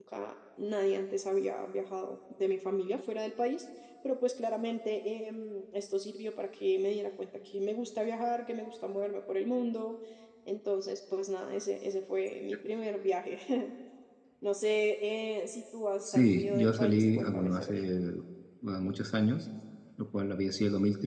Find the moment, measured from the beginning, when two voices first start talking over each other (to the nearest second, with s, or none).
16 s